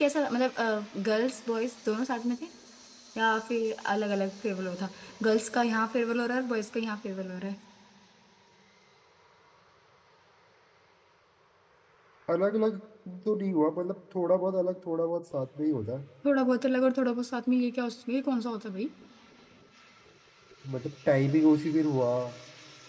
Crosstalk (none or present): none